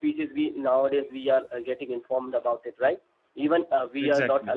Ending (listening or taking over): listening